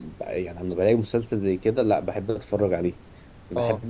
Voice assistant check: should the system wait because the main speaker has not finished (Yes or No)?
Yes